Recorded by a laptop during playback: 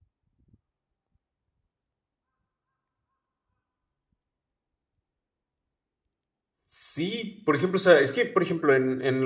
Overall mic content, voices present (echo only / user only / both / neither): user only